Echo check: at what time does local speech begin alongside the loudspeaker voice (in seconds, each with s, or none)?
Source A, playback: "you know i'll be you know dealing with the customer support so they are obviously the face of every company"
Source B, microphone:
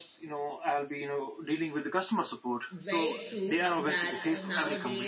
2.7 s